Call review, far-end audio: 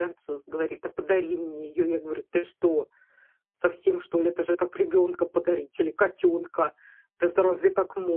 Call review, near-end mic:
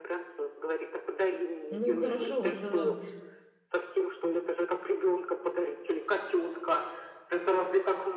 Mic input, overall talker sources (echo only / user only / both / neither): both